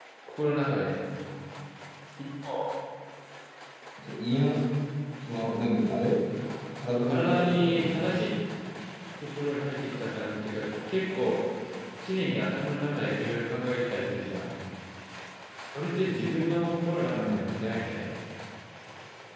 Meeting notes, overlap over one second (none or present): present